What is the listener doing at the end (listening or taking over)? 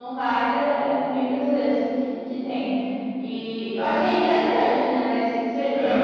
listening